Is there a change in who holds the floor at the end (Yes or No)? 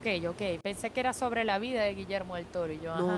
Yes